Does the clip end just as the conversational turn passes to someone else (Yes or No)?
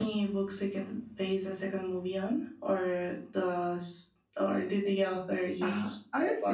Yes